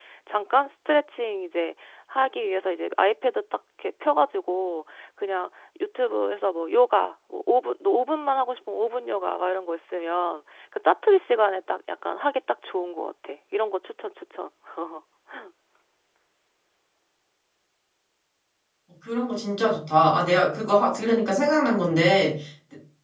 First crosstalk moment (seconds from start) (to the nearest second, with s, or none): none